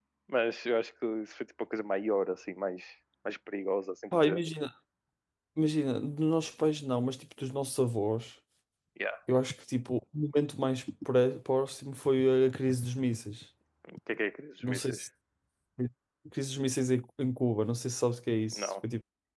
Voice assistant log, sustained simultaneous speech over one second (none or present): none